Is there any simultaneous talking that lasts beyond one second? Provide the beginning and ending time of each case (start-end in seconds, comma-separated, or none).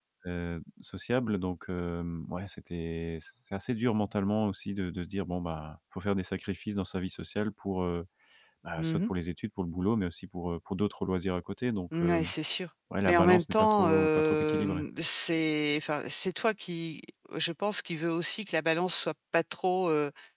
13.1-14.8